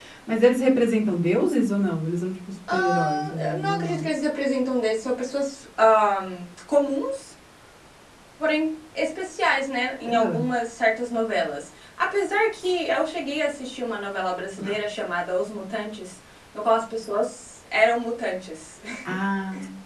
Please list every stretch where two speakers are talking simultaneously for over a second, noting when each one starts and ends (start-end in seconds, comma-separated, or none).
2.7-4.1